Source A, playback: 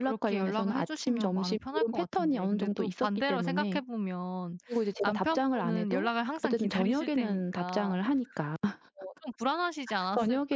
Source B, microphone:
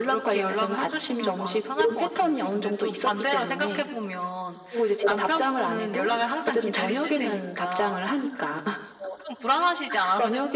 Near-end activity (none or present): none